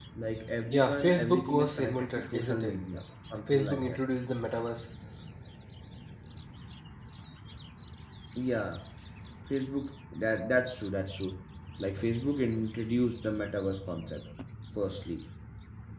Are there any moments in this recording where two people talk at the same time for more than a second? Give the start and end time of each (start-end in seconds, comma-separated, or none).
0.7-2.7